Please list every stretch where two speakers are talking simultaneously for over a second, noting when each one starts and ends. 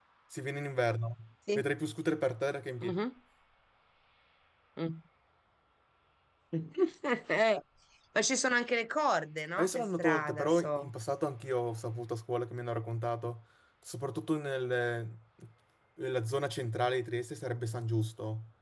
9.6-10.9

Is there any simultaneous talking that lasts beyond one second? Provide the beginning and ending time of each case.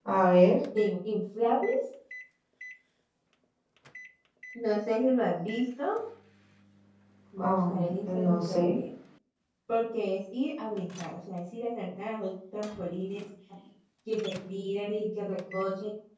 7.4-8.8

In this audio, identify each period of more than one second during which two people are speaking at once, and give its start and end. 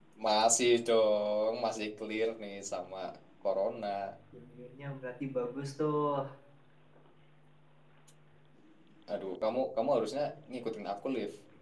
none

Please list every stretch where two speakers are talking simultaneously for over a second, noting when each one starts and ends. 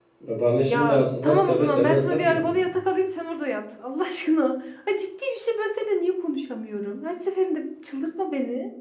0.7-2.6

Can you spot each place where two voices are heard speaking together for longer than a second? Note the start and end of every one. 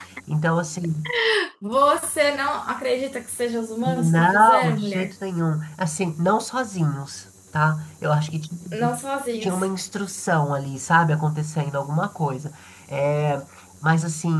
3.9-5.1

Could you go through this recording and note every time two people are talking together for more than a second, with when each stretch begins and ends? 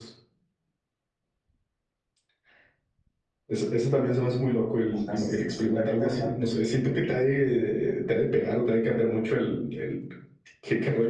5.1-6.5

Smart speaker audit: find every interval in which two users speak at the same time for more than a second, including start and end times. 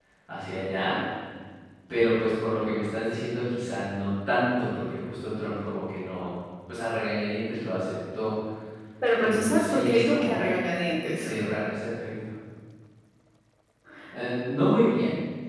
9.2-10.4

